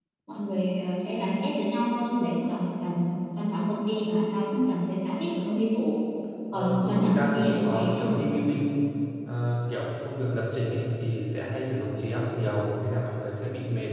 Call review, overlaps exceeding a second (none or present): present